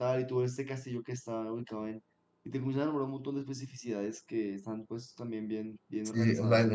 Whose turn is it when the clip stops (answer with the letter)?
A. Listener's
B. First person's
A